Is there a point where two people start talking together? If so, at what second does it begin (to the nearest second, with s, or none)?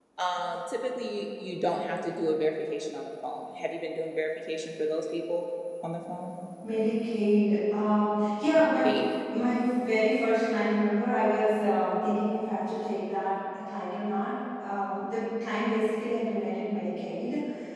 none